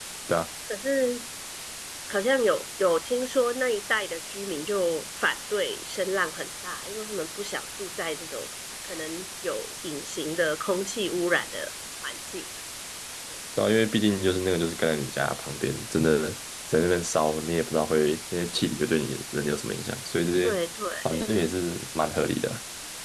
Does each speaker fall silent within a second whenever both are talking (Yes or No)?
Yes